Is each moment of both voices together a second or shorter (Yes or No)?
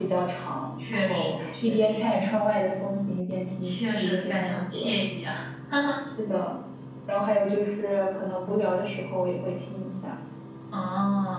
No